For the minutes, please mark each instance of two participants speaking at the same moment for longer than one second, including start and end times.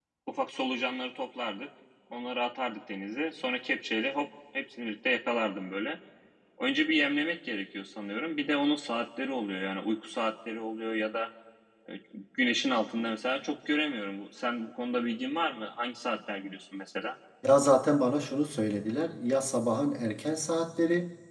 none

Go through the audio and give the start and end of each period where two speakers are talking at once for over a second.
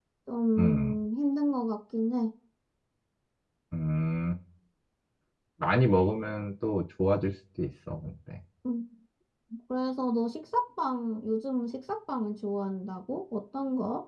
none

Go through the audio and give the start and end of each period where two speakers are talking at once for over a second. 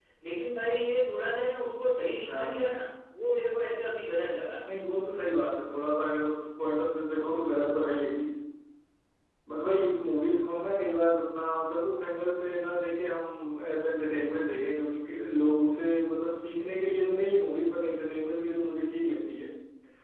none

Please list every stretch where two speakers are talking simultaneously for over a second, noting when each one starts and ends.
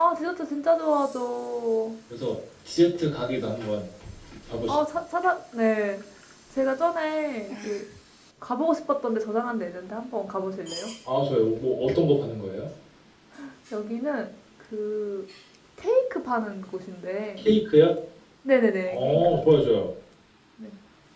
none

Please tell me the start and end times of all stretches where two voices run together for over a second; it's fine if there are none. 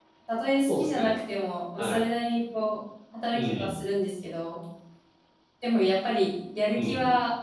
none

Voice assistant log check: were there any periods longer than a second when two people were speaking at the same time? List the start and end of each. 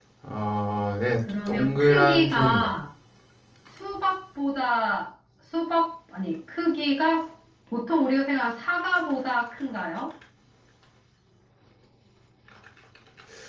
1.5-2.7

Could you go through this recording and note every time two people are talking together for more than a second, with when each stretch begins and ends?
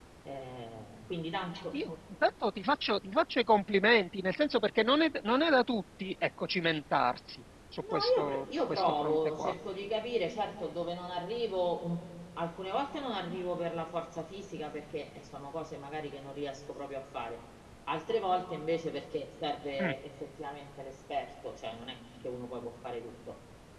7.8-9.5

